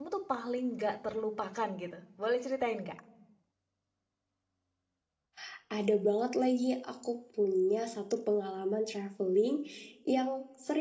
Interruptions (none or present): none